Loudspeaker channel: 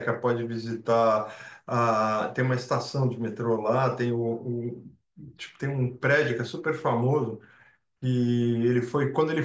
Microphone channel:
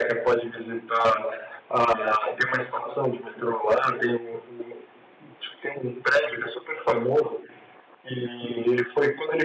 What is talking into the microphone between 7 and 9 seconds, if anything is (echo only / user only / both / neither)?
echo only